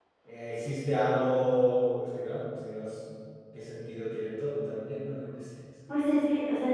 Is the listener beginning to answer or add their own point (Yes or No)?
Yes